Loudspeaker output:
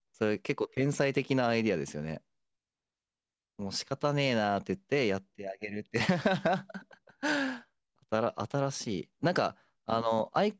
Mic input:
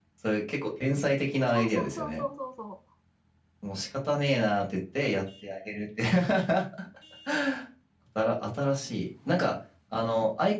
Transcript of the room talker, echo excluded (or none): そうそうそうそうそうそ